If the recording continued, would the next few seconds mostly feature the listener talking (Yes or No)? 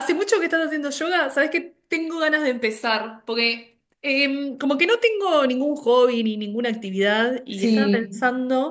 No